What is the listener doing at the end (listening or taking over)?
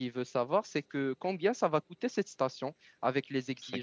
listening